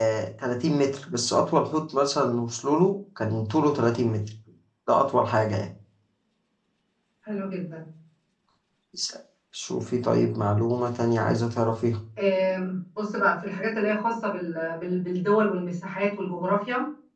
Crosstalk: none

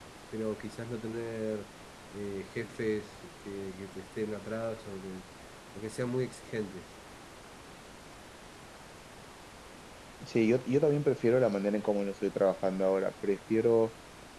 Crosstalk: none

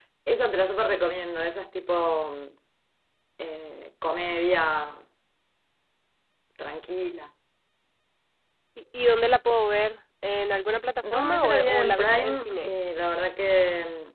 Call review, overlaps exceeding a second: present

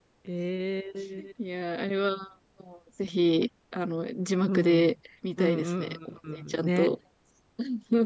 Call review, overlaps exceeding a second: present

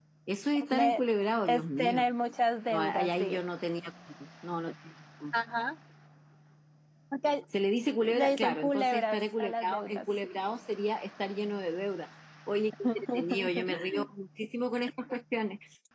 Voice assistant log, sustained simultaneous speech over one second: present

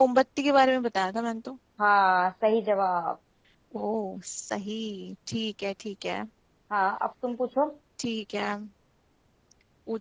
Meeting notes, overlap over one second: none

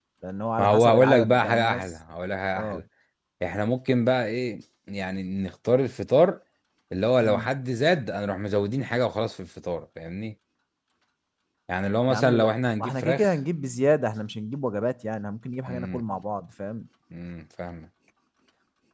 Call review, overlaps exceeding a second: present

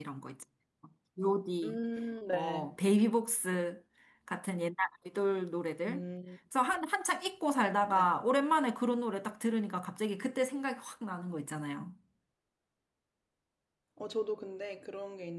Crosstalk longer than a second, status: none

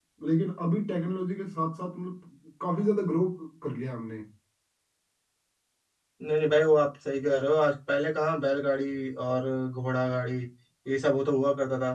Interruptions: none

